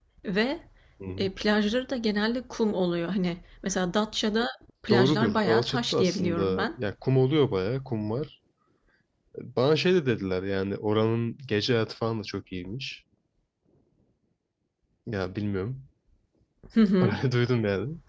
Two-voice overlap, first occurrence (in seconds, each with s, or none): 4.9 s